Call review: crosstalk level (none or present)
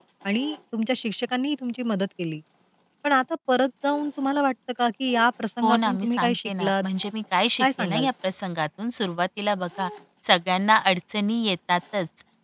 present